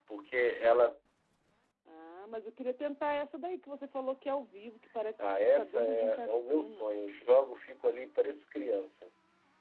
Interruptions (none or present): present